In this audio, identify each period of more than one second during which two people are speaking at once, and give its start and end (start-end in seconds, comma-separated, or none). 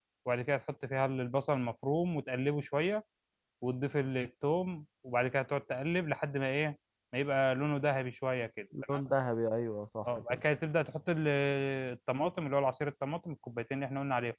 none